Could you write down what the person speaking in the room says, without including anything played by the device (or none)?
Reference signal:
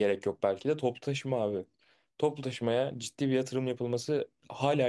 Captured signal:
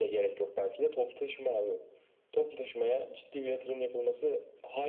none